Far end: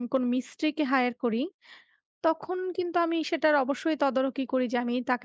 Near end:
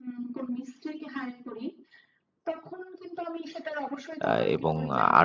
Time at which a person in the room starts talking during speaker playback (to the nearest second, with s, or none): 4 s